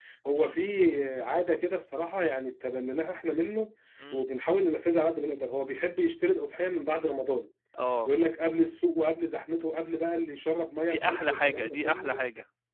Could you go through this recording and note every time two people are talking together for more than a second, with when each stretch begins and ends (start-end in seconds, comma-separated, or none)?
10.8-12.2